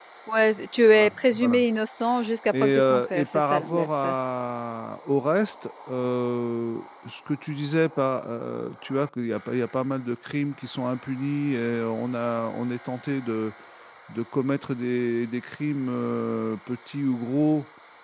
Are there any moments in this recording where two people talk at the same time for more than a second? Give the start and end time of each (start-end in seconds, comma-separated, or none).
2.6-4.0